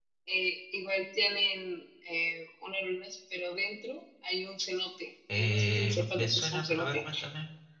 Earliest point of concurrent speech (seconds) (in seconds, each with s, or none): 5.3 s